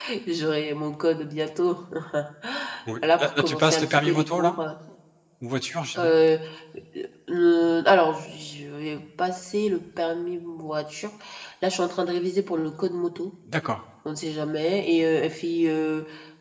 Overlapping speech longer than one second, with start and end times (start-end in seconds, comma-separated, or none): 3.0-4.5